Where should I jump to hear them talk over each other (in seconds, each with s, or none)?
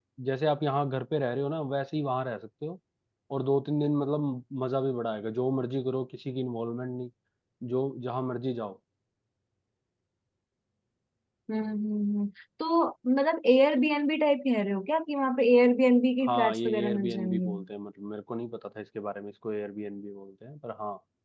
16.2 s